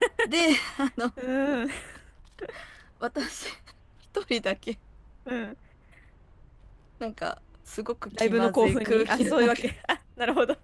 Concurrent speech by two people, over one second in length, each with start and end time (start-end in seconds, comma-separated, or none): 8.2-9.6